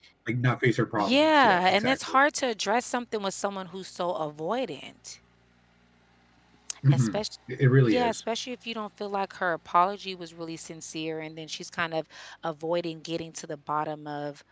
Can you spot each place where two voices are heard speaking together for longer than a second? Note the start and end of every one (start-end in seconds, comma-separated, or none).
1.0-2.2